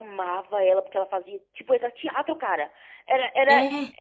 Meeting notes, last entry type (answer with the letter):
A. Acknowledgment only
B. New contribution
A